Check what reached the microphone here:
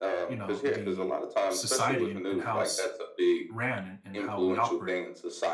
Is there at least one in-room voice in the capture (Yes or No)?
Yes